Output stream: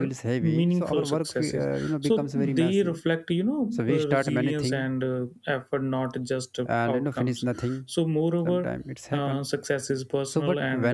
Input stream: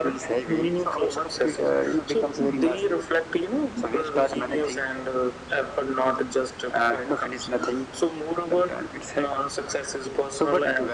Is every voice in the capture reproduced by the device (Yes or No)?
Yes